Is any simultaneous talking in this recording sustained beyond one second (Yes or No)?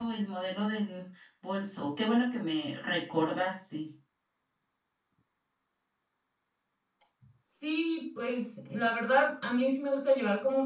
No